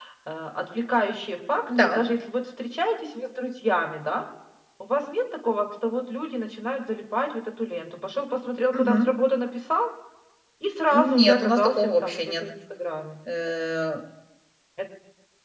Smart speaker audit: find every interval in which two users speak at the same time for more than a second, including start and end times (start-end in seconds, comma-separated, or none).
10.9-12.4